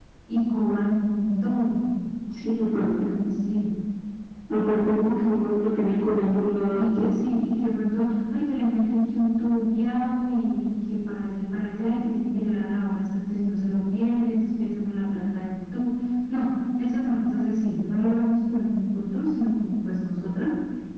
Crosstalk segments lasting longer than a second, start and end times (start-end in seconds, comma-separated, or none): none